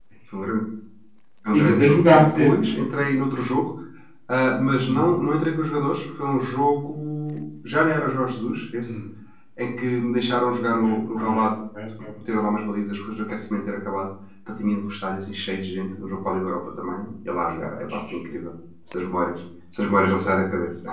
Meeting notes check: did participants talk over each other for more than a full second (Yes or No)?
Yes